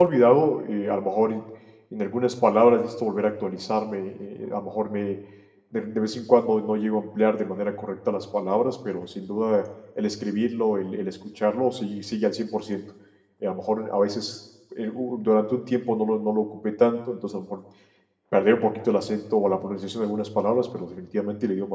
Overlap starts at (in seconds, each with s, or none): none